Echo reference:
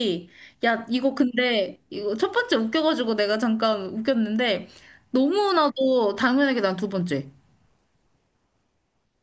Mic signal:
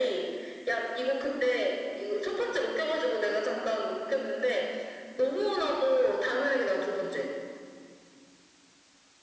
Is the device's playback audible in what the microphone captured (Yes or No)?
Yes